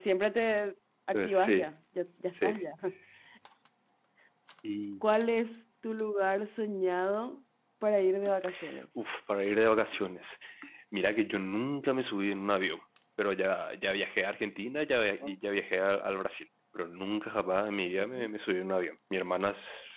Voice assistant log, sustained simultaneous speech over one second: none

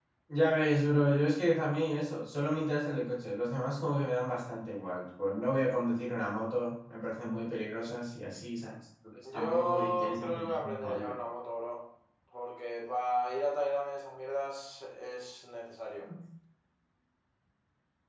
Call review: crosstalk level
present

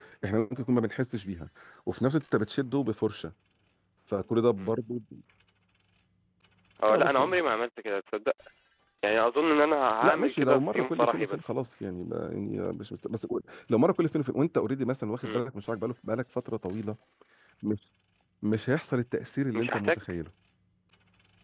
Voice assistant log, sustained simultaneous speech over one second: present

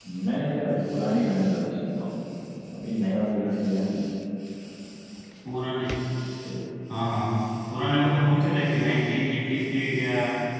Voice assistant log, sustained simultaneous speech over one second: none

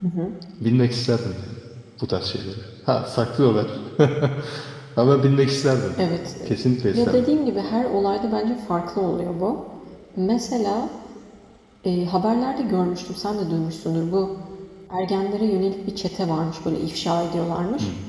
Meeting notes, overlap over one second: none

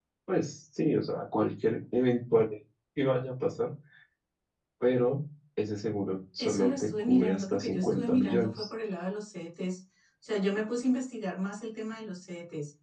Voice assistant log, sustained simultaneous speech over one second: present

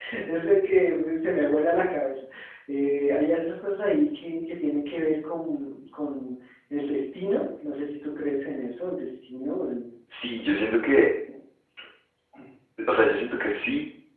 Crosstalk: none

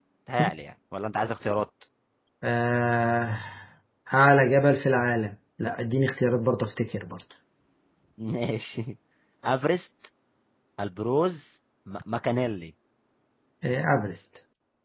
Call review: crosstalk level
none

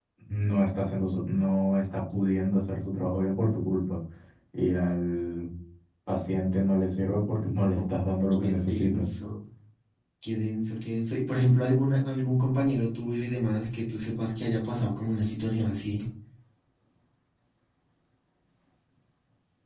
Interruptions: present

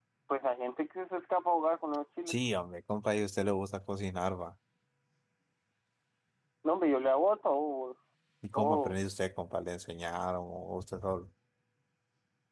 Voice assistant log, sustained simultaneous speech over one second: none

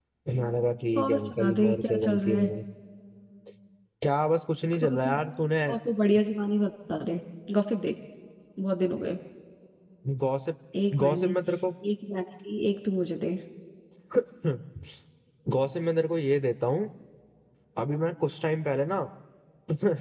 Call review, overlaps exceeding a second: present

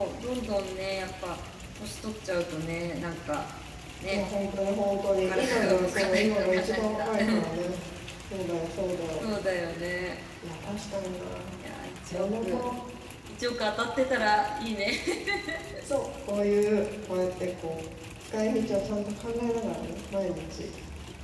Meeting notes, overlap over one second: present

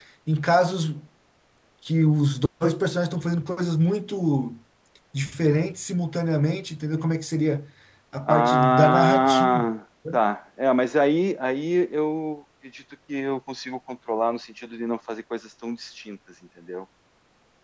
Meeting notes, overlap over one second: present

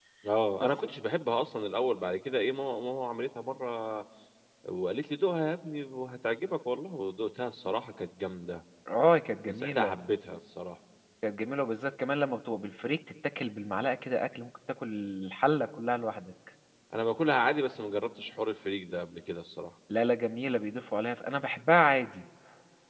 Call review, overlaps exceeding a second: none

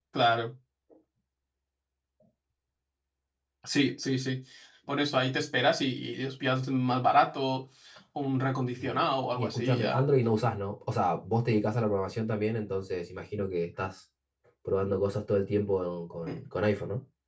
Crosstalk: present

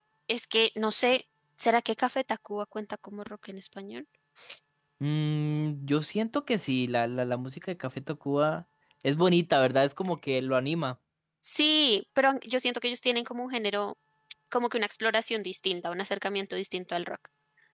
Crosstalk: none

